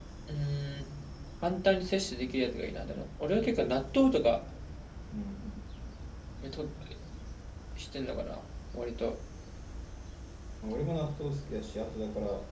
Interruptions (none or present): none